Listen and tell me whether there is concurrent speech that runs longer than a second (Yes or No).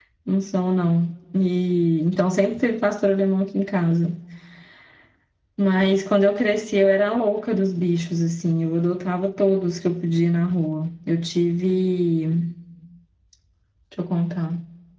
No